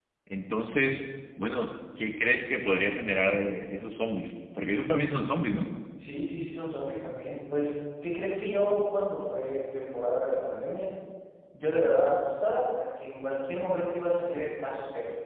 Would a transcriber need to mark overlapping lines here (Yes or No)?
No